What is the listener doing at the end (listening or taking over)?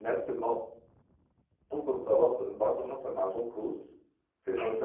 listening